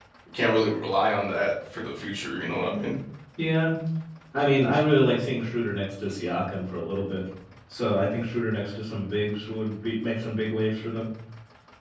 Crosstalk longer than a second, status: none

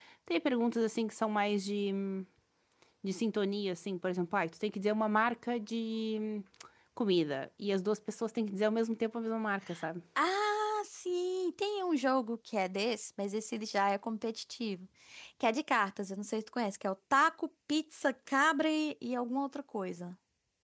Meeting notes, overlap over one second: none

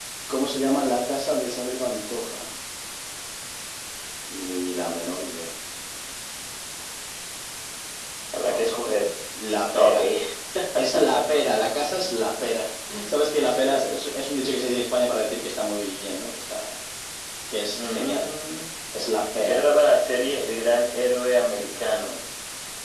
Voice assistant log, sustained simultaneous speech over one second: none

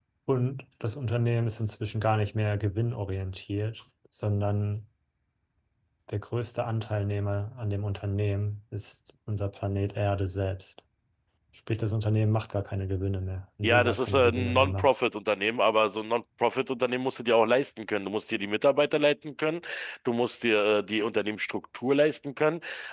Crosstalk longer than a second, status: present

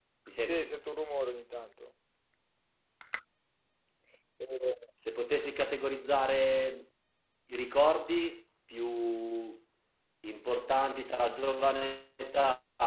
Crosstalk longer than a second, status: none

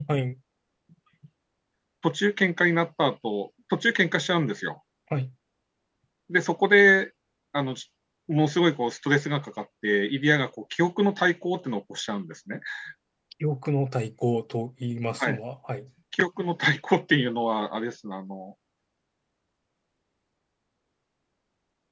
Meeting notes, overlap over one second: none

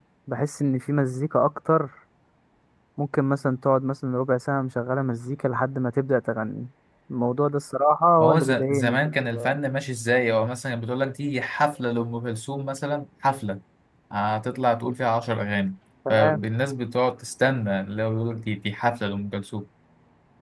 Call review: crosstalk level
present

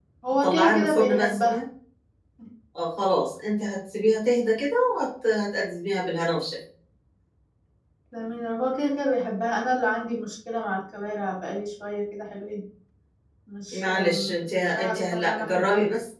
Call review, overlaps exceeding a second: present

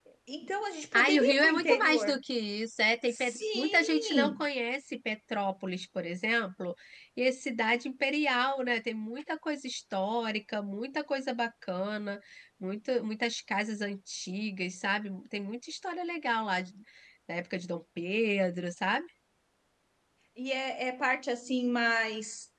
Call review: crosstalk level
present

